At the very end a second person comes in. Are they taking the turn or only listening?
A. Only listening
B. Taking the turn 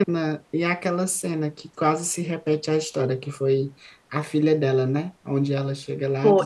A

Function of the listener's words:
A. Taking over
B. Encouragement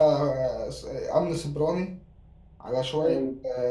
B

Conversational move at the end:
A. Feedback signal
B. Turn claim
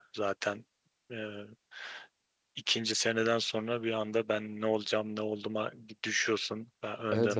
B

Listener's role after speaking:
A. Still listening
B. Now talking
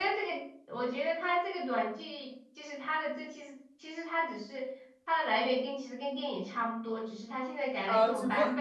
B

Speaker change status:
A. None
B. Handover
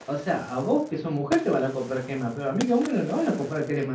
B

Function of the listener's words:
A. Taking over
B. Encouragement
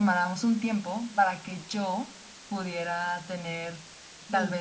B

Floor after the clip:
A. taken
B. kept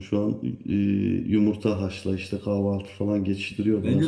A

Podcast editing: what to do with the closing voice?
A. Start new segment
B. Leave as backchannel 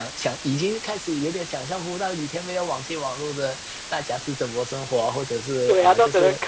A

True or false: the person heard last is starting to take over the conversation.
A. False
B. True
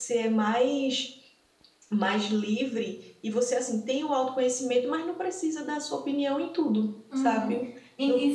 B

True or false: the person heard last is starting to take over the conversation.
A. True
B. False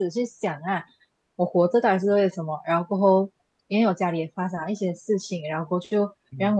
B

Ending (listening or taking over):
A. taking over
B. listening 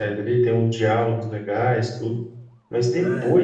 B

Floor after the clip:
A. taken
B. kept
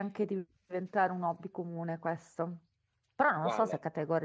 B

